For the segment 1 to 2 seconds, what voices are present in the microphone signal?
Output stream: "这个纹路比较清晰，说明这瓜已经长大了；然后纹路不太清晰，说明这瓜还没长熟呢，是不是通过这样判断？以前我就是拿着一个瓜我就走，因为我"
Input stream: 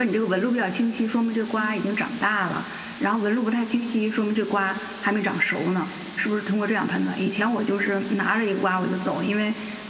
echo only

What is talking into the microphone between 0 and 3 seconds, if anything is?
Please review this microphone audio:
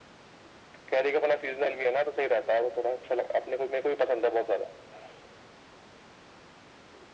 echo only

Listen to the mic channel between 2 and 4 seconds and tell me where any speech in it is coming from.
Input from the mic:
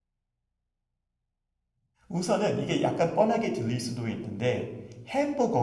user only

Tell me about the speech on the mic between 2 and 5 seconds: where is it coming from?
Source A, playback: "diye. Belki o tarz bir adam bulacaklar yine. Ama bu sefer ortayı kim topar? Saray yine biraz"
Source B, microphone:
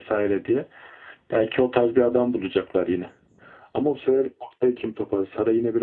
echo only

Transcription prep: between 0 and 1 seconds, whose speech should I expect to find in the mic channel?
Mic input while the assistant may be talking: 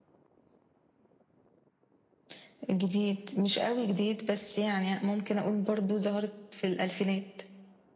neither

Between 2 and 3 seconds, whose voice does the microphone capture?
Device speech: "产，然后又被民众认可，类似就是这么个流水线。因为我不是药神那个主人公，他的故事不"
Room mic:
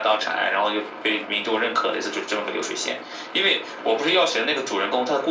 echo only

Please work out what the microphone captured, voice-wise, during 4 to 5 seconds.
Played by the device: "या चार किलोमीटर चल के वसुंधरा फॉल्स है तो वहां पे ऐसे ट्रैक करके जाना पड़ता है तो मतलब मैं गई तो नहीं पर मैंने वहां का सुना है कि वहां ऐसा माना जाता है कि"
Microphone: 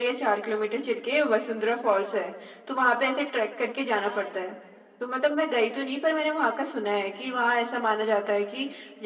both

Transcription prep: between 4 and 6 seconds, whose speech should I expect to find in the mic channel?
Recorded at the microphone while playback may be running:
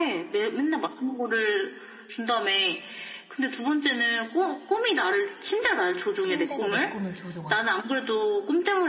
echo only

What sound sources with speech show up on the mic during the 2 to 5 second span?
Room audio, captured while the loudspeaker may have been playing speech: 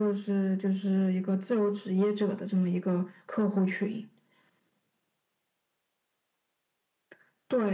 echo only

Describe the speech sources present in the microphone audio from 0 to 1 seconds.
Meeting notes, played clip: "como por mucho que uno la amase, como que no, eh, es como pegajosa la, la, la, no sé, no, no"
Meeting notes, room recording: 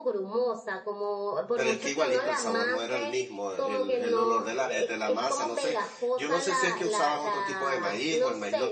echo only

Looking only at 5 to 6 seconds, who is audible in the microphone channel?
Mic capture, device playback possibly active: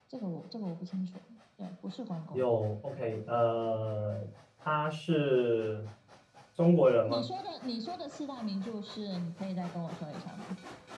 user only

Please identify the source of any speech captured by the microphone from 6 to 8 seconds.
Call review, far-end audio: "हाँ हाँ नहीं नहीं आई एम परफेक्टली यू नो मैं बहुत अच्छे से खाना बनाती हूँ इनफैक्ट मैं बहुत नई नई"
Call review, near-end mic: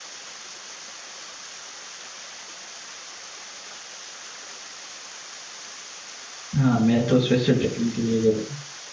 user only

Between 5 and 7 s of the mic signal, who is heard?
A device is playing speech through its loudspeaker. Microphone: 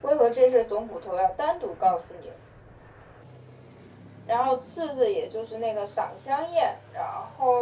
echo only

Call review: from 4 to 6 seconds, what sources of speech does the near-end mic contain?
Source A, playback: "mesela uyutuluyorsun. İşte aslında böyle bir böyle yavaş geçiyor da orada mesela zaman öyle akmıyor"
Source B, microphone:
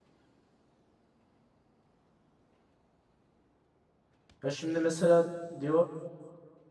user only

